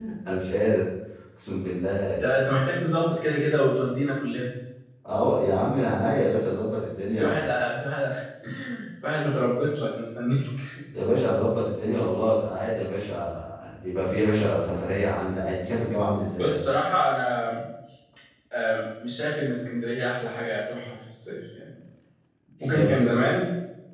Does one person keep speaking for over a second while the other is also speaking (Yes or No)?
No